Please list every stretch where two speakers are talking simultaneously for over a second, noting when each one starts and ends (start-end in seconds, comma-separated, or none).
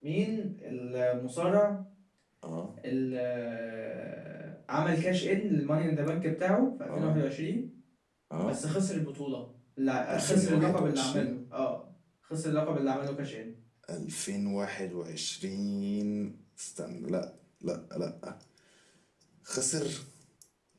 10.1-11.4